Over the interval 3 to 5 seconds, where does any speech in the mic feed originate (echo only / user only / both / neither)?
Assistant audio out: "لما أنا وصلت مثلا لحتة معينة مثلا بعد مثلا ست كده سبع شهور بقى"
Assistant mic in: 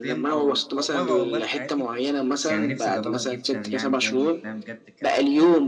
both